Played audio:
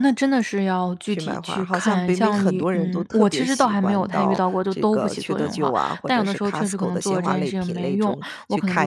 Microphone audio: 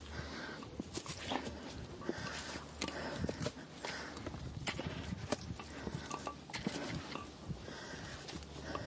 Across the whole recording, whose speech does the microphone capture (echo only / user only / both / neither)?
neither